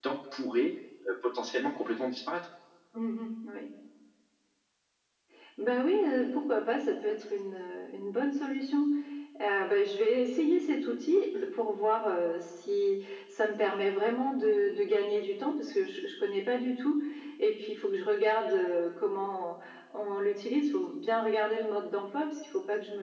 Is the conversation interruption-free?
Yes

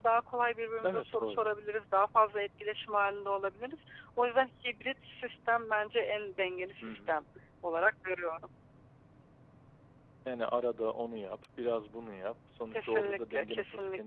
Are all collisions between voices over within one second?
No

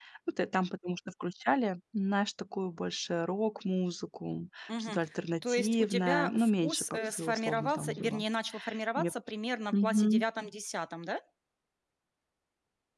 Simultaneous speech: Yes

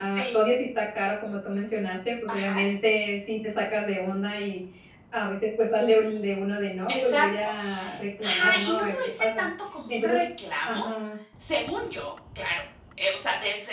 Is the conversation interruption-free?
No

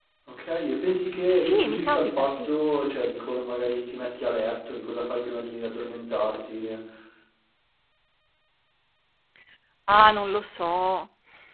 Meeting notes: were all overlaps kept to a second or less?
No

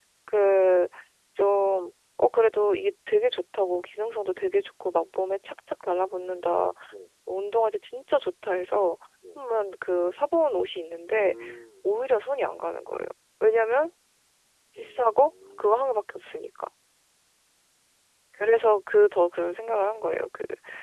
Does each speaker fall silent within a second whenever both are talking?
No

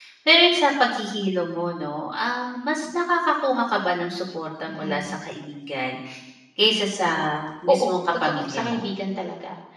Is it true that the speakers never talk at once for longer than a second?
No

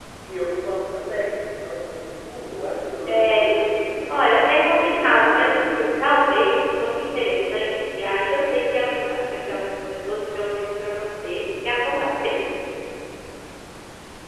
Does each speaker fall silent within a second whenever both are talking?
No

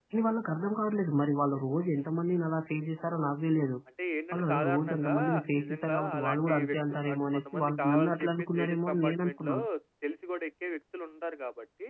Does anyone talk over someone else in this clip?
Yes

